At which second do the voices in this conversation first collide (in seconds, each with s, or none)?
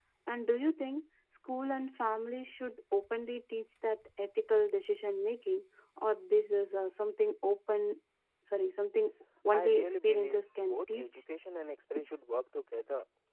9.5 s